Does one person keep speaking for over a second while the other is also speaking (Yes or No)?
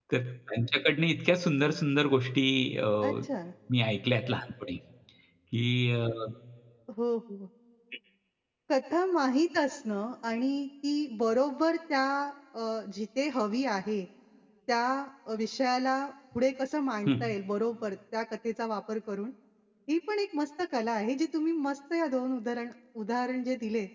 No